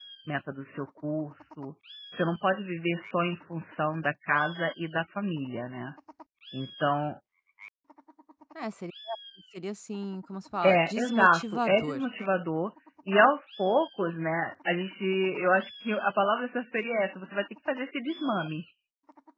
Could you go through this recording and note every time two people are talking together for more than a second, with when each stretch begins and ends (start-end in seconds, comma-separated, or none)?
10.6-12.0